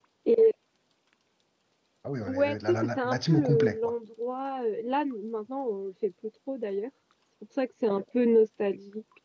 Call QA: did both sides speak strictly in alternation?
No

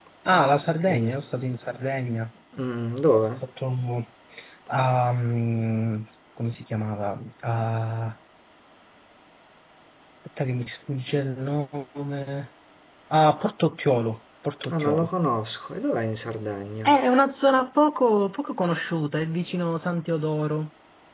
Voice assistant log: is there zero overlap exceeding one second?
Yes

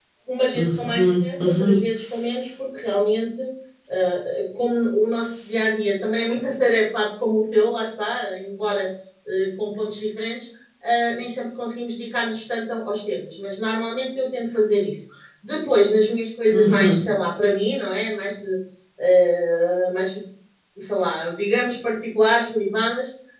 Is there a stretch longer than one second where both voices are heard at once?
Yes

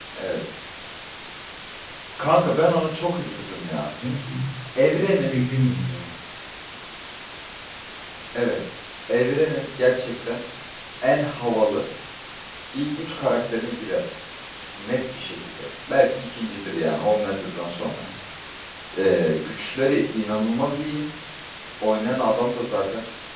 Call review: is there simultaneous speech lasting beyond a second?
No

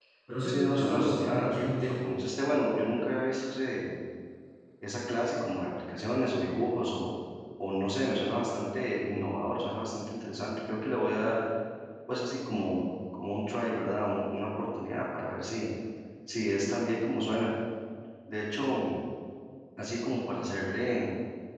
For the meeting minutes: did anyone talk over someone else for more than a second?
Yes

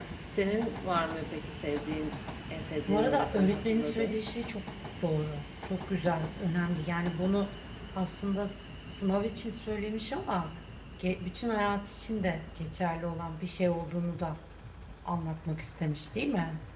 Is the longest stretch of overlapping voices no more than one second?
No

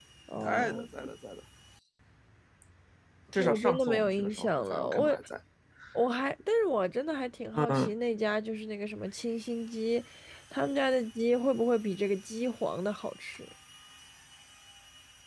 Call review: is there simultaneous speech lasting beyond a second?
Yes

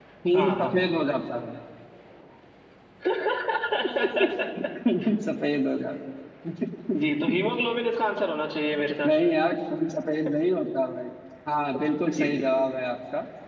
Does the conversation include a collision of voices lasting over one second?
No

